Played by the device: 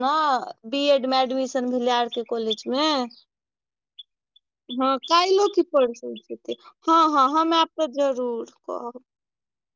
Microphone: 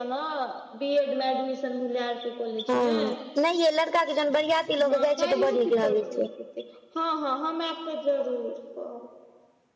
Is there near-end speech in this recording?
Yes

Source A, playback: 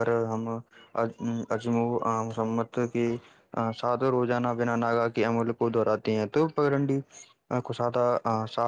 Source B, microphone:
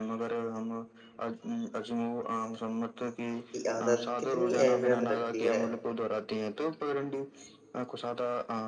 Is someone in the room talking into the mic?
Yes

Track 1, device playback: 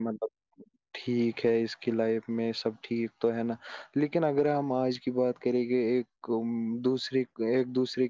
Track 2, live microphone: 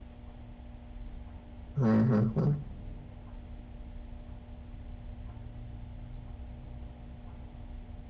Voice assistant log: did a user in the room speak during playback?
Yes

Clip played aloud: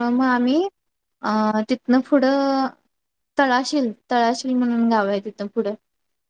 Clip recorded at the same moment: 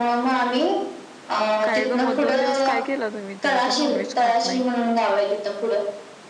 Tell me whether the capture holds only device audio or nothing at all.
No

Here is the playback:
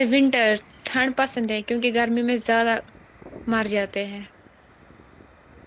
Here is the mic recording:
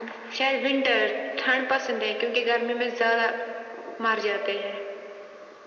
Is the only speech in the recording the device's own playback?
Yes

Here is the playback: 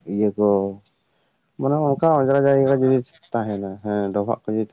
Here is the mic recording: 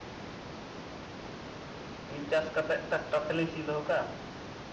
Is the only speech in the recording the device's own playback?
No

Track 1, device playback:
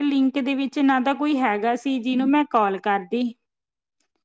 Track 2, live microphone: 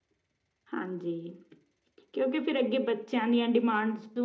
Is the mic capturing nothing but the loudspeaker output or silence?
No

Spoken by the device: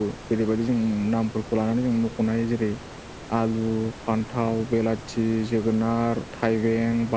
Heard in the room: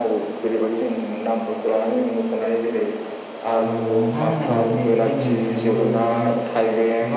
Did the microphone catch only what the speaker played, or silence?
No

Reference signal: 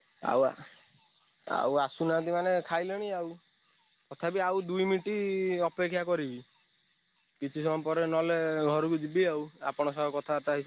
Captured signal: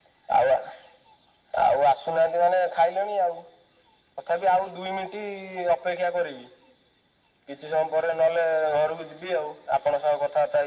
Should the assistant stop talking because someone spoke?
No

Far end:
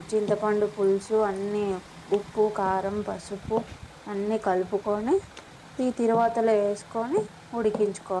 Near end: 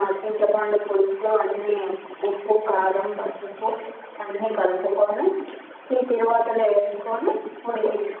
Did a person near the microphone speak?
No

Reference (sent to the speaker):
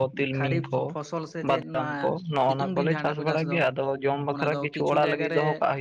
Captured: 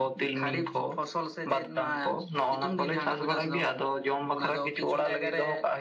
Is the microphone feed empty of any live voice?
Yes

